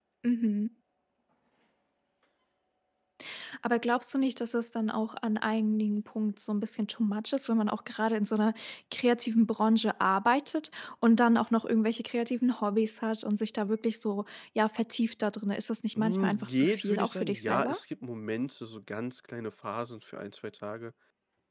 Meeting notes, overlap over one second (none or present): present